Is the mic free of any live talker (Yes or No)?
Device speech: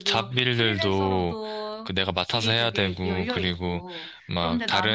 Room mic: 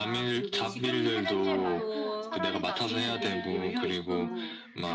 No